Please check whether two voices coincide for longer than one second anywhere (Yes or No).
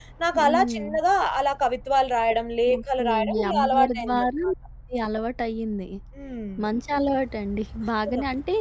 Yes